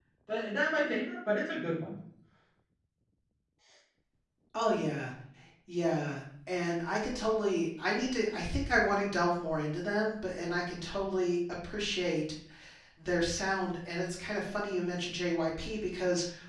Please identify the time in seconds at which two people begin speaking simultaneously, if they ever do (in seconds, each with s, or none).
none